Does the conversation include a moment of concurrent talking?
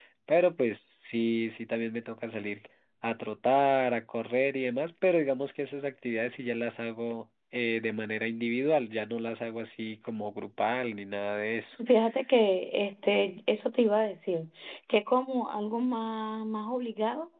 No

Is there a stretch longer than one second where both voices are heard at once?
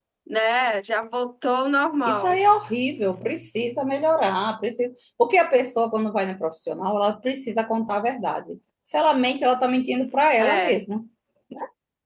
No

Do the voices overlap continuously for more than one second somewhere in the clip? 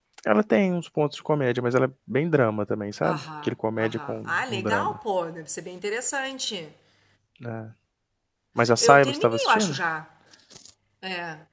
Yes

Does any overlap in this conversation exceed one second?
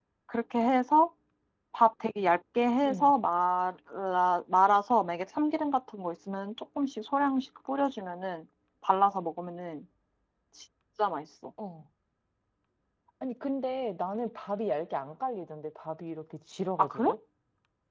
No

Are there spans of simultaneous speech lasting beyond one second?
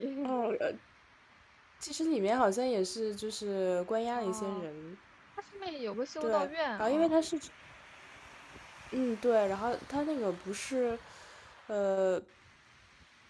No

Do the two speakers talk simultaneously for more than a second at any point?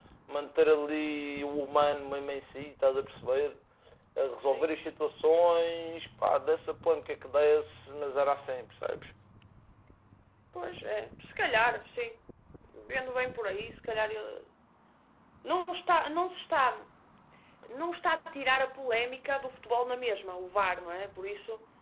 No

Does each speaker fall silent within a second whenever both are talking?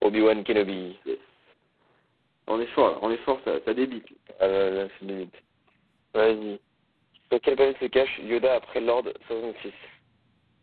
Yes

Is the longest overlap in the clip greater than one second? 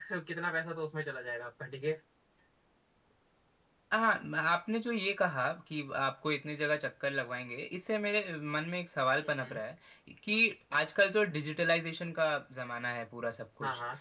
No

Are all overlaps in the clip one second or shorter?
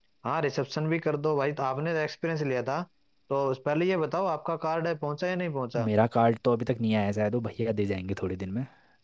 Yes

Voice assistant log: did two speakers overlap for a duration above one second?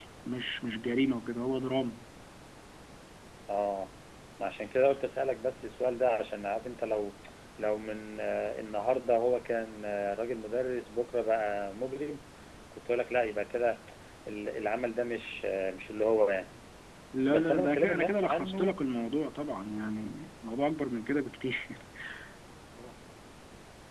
Yes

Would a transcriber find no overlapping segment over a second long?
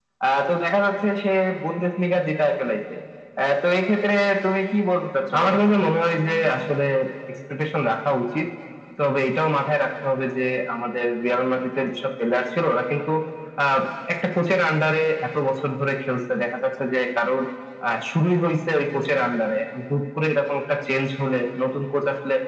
Yes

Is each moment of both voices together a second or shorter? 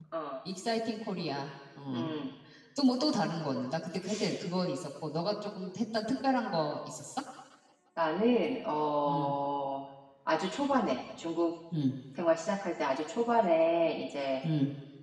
Yes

